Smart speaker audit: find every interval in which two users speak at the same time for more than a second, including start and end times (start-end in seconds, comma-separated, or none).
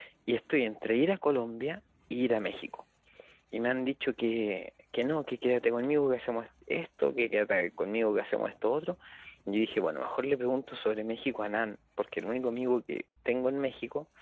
none